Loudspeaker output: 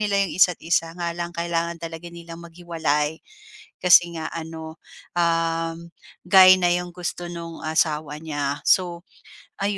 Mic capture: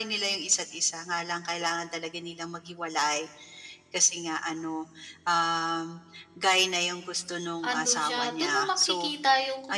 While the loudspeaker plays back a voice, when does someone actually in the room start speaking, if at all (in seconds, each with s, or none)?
7.7 s